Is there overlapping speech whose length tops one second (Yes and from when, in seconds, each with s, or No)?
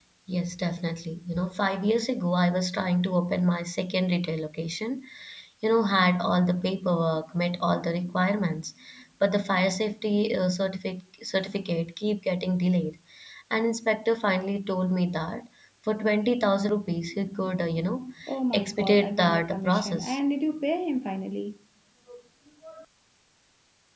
Yes, from 18.5 s